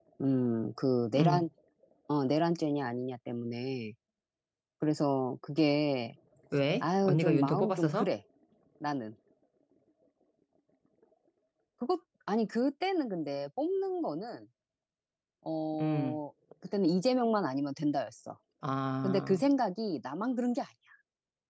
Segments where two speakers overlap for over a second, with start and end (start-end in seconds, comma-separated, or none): 6.8-8.1